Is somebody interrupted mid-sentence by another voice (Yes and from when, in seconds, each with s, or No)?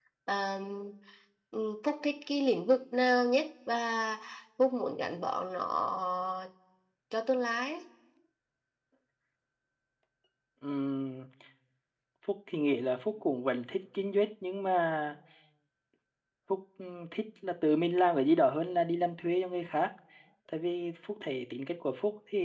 No